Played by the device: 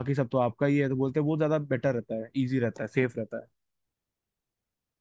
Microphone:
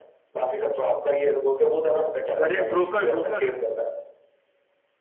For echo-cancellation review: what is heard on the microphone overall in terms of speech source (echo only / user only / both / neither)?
both